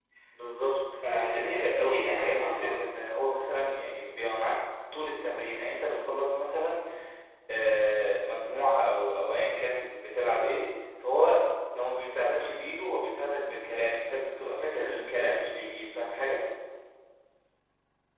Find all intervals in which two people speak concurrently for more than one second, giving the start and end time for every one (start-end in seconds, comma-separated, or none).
1.1-2.9